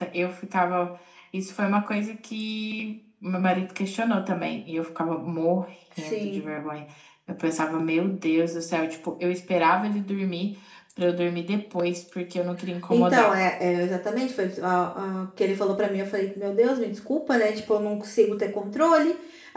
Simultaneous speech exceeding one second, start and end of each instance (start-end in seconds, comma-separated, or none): none